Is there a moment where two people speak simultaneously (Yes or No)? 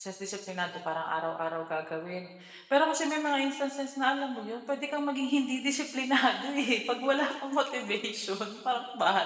No